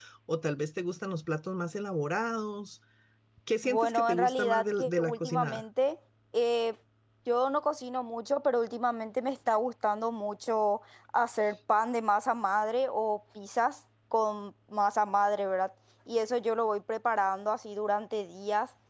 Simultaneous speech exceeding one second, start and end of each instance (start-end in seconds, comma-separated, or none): 3.6-5.6